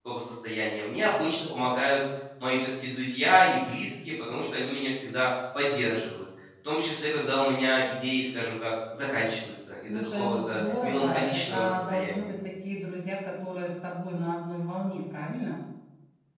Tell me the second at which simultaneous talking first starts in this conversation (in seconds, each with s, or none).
9.8 s